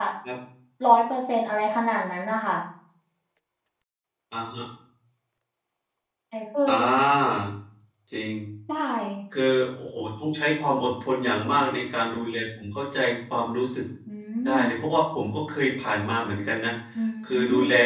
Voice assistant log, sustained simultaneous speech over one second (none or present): none